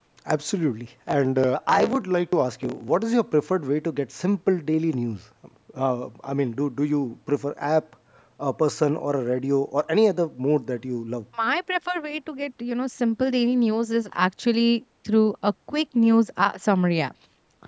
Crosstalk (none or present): none